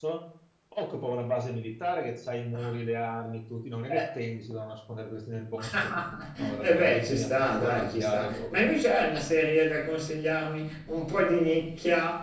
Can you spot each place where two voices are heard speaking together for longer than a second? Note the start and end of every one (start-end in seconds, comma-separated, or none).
6.6-8.7